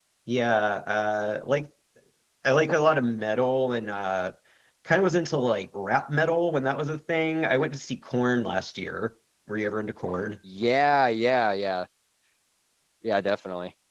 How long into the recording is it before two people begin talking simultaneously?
none

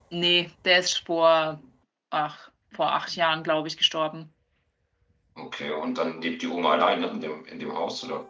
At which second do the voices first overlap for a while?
none

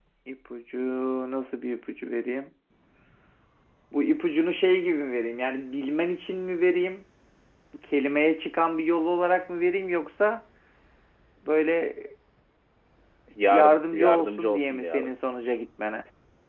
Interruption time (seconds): 13.5 s

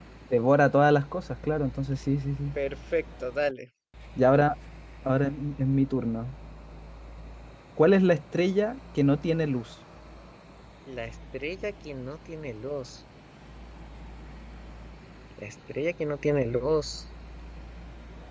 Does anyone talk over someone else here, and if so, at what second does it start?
none

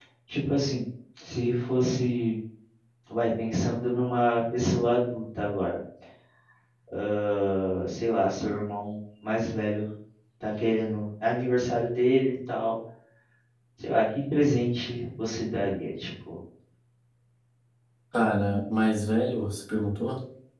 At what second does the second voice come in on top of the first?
none

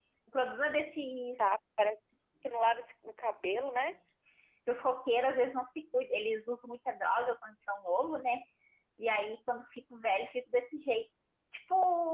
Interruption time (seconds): none

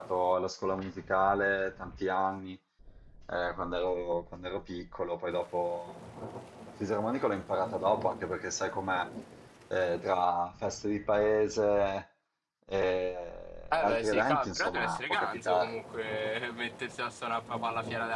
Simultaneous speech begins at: 13.7 s

